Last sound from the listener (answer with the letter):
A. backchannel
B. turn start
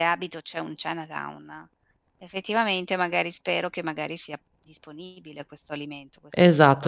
B